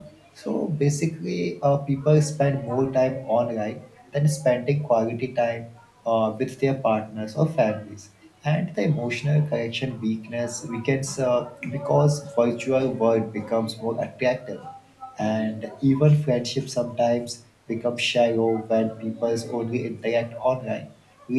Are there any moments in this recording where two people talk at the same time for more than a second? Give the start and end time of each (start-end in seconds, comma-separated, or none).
none